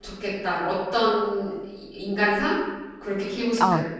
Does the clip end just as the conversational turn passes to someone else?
Yes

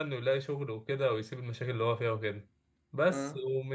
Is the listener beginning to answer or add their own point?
No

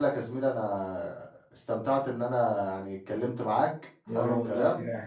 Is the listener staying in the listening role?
No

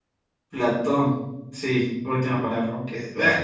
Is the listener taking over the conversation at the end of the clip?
Yes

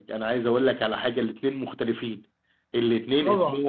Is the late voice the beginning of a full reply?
No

